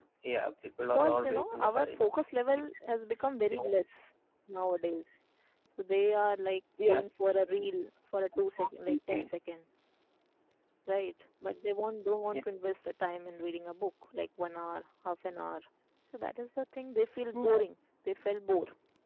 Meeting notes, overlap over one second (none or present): present